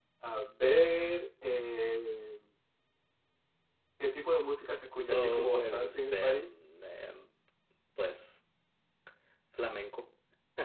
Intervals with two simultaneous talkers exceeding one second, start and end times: 5.0-6.5

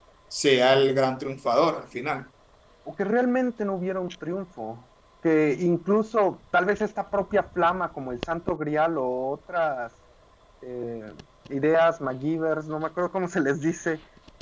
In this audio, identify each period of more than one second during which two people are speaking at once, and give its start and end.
none

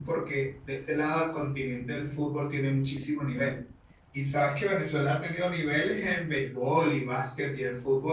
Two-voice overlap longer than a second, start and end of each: none

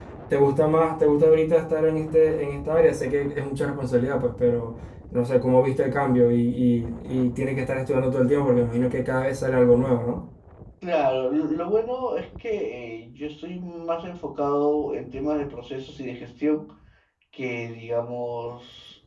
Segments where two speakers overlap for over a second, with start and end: none

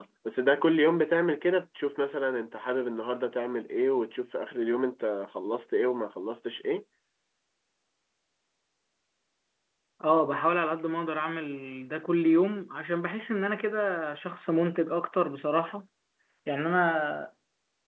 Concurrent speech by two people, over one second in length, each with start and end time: none

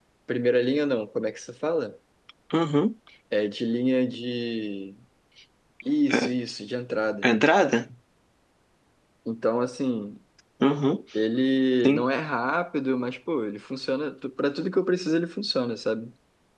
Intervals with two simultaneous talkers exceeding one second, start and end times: none

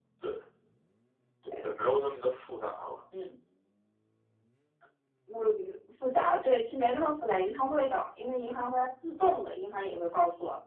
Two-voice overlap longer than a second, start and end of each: none

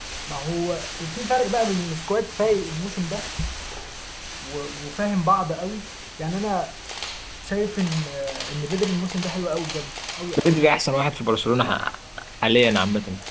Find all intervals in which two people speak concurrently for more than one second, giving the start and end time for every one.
none

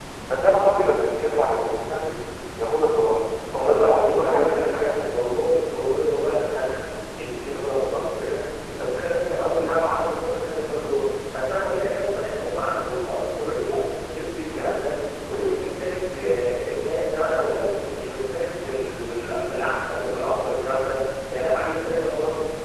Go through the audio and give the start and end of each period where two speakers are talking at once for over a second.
3.5-5.2

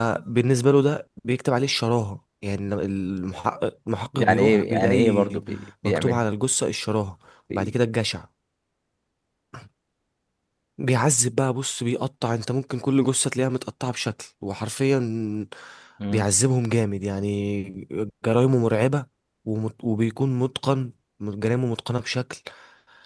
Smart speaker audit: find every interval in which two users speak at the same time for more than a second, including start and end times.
4.2-5.4

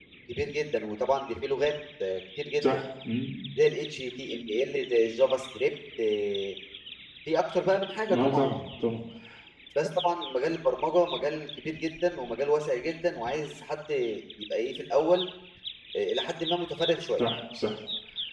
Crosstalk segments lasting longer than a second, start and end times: none

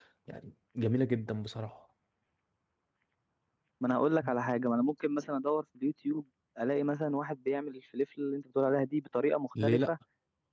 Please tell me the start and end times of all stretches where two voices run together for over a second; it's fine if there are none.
none

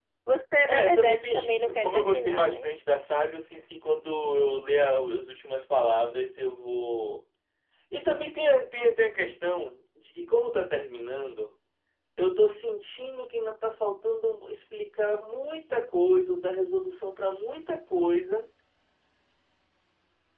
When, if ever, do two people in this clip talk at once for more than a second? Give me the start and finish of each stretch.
0.7-2.7

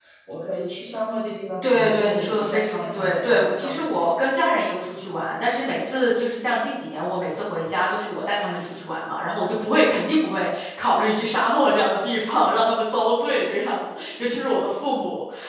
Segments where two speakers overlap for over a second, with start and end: 1.6-4.1

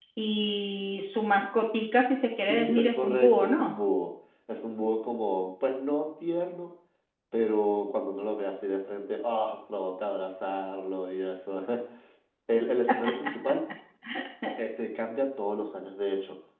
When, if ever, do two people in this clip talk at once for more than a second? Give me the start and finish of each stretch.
2.4-3.7

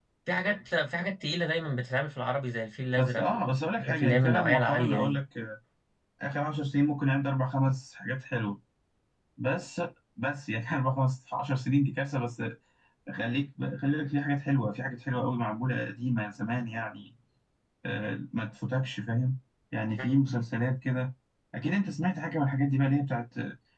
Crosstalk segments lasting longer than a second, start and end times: 3.0-5.2

